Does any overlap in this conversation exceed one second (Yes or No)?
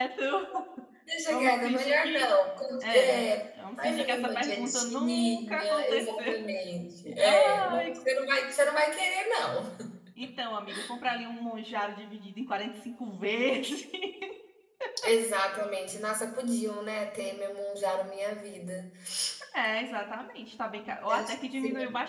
Yes